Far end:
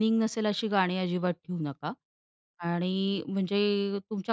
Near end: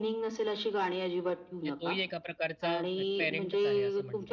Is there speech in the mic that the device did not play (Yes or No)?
Yes